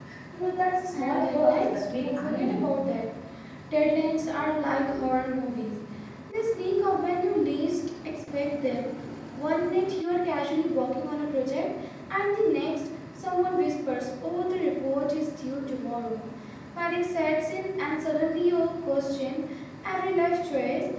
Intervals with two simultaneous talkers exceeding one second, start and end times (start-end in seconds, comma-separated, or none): 0.9-2.6